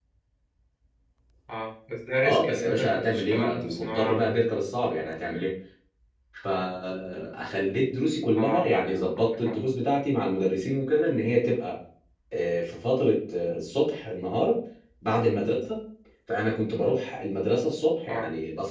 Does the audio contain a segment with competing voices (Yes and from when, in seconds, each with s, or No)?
Yes, from 2.2 s